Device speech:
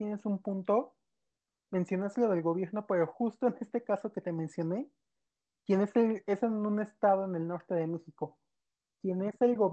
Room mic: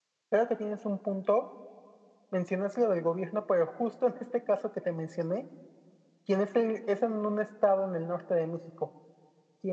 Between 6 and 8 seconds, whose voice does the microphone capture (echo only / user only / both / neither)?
echo only